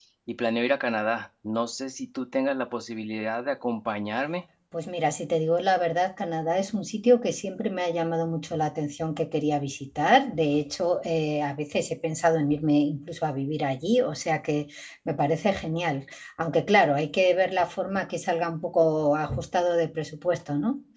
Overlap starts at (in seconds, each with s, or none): none